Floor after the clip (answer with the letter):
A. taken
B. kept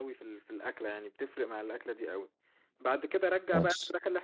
B